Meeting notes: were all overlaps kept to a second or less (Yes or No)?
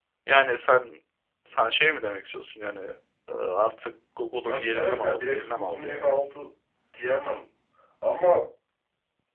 No